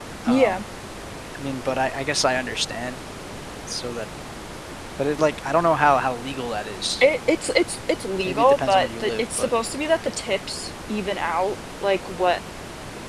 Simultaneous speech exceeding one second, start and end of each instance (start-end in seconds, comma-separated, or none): 8.2-9.5